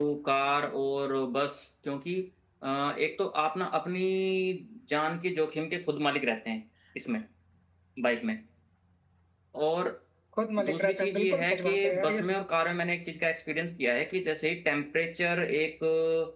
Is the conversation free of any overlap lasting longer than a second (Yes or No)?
No